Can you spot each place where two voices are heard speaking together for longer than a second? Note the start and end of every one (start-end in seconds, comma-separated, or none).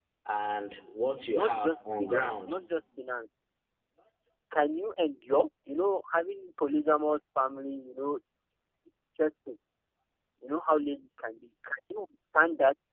1.2-2.5